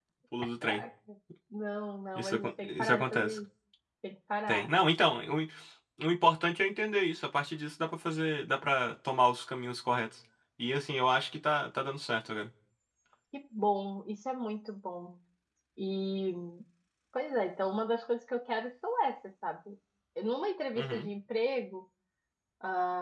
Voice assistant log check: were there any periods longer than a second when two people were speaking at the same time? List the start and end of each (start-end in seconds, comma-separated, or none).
2.1-3.4